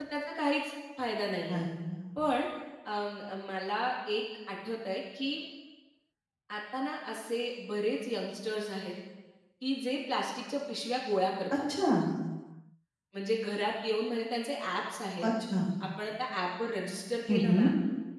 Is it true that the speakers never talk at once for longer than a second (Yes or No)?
Yes